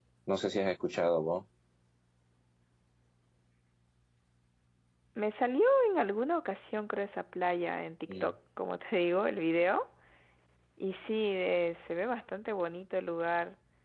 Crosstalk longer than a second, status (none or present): none